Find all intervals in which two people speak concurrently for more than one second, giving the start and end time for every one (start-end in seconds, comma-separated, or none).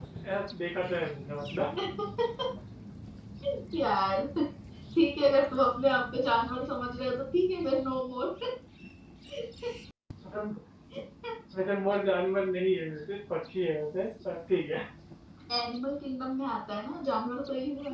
none